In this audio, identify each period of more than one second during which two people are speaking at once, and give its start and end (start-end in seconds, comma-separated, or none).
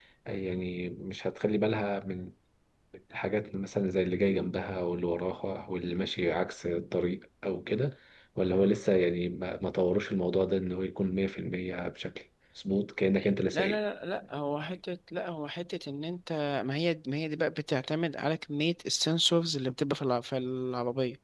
none